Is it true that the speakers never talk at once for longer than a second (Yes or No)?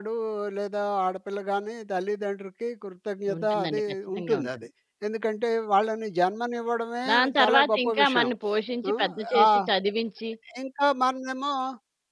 No